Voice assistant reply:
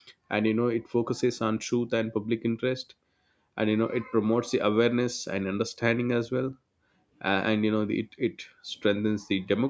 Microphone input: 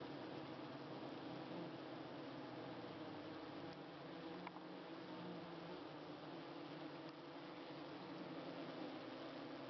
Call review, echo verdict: none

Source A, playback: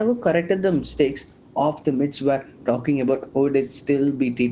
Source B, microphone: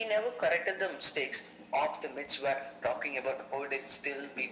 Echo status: present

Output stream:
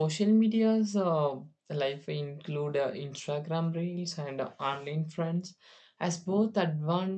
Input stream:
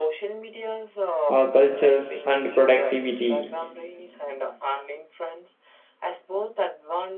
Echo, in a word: present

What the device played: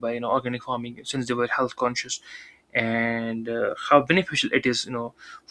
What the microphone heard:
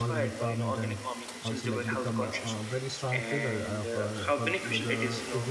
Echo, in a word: present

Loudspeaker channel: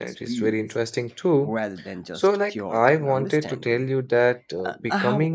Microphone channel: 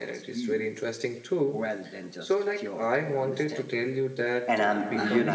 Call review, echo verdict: present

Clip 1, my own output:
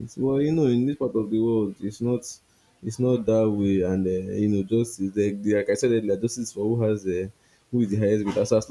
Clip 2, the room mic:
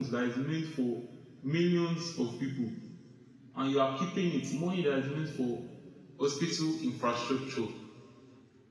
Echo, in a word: none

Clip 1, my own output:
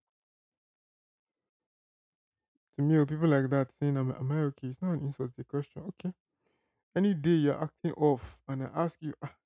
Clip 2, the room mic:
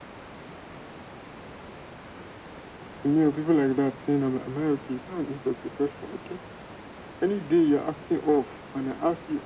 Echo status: present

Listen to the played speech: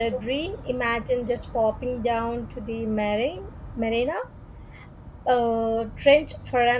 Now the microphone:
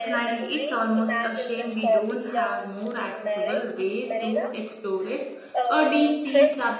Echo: present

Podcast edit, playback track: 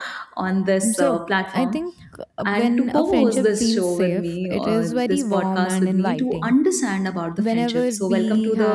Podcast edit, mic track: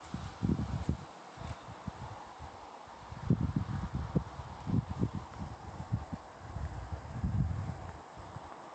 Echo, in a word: none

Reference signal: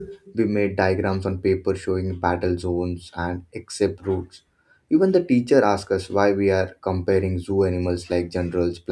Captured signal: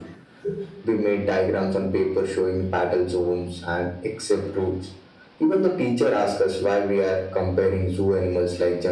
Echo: present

